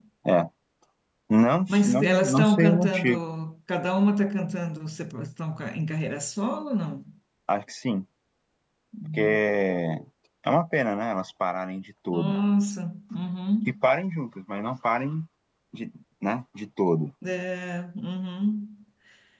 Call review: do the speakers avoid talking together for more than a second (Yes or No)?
No